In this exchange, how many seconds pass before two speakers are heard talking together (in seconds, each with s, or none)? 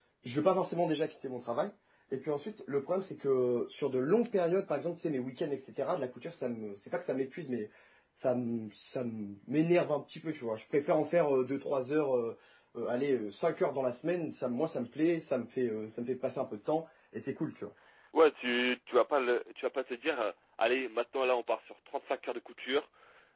none